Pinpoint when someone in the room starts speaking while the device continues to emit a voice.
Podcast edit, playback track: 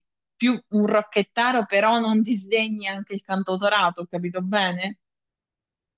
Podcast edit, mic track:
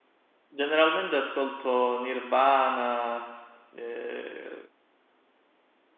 1 s

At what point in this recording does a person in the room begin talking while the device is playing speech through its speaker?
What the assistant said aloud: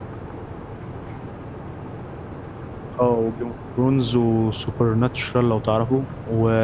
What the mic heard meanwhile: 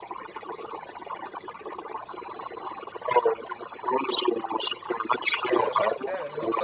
6 s

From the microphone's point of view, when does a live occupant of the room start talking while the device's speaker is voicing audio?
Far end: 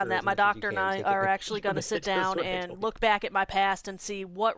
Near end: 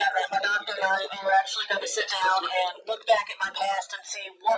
none

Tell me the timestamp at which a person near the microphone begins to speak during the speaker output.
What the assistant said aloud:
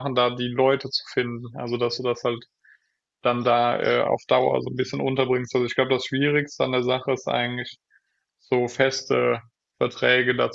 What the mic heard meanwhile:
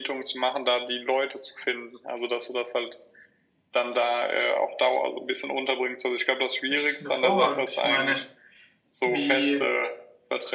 7 s

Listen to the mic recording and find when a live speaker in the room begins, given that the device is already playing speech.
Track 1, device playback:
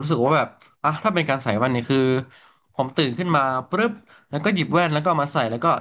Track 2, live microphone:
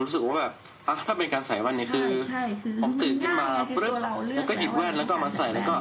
2 s

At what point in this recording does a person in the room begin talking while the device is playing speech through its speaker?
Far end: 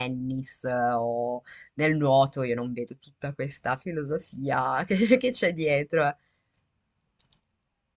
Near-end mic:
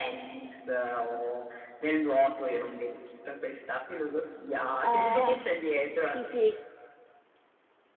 5 s

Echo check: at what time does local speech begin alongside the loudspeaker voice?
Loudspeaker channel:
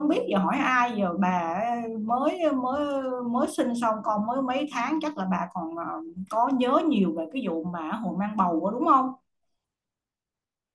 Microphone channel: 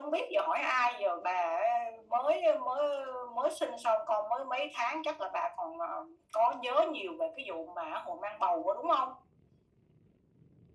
none

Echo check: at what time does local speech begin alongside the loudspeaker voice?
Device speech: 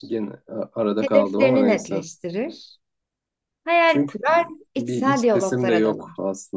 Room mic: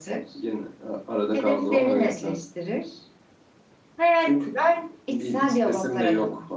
none

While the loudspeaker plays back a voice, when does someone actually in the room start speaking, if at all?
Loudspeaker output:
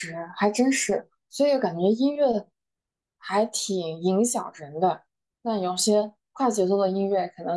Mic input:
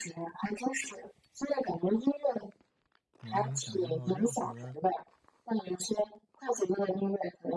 3 s

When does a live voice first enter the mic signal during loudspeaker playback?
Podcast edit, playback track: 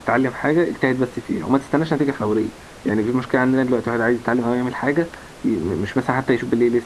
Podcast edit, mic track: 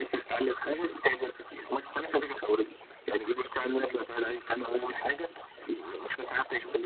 none

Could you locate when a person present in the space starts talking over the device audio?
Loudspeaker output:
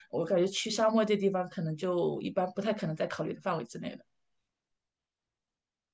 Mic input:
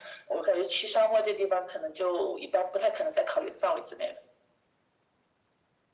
none

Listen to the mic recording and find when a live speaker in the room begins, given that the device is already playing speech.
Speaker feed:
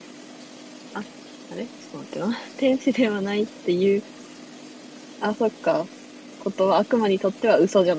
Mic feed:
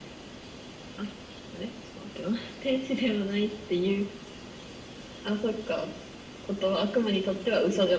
none

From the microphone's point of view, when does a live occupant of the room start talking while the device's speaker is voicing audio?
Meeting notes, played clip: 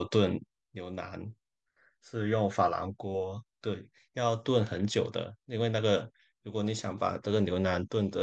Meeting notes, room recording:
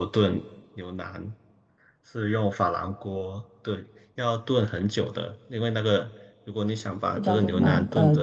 7 s

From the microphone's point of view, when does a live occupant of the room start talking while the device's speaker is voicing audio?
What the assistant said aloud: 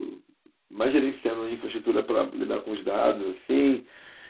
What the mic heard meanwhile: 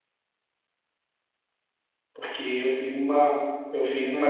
2 s

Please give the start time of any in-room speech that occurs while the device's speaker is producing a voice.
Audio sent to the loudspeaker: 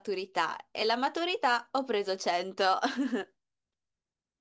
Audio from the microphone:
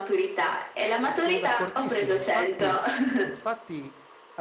1 s

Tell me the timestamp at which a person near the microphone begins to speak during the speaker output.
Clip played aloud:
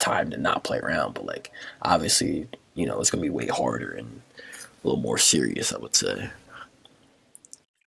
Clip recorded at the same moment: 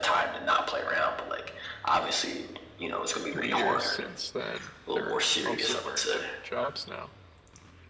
3 s

